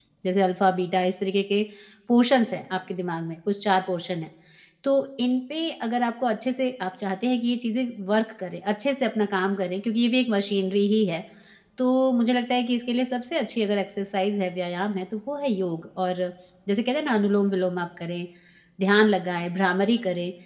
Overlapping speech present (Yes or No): No